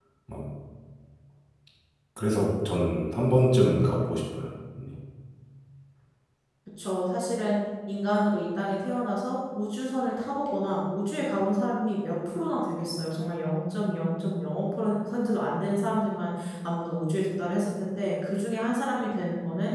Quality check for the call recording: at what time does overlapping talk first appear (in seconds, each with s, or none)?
none